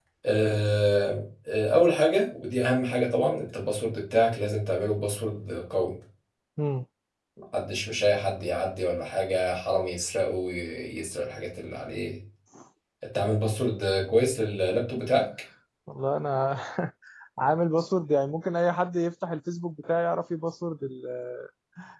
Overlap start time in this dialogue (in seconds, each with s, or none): none